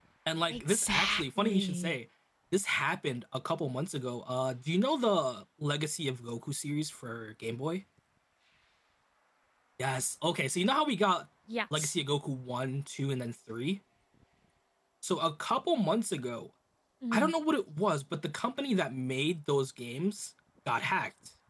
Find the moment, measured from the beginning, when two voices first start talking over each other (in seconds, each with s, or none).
0.5 s